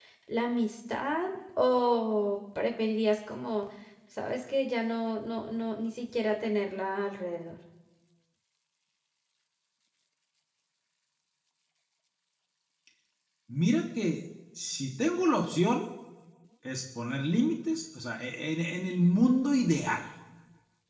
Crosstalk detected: No

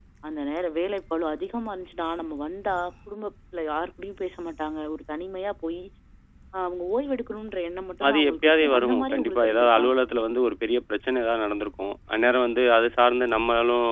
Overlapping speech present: Yes, from 8.0 s

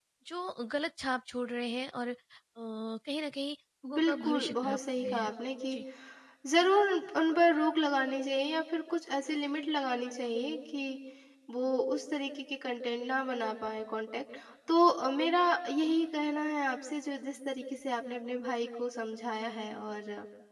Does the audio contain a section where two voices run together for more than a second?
Yes, from 3.8 s

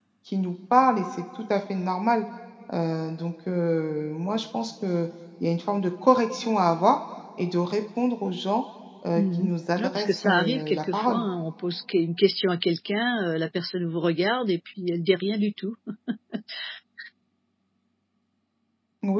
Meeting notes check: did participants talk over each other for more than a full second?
Yes, from 9.2 s

